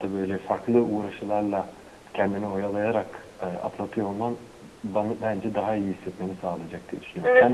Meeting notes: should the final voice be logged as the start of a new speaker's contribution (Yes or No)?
Yes